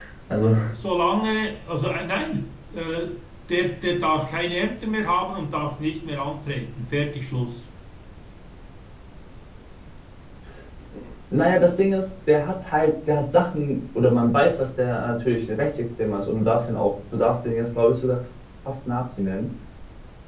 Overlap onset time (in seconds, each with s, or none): none